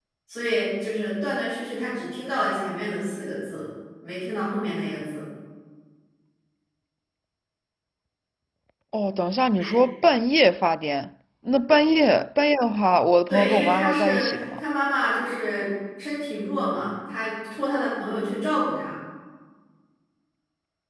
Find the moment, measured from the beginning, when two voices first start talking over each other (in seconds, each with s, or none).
13.3 s